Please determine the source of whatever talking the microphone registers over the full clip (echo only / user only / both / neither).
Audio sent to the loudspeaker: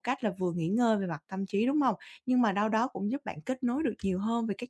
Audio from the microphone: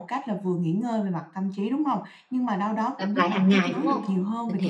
both